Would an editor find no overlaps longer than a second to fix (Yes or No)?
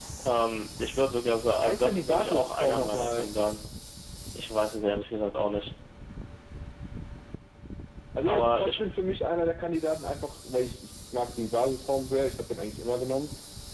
No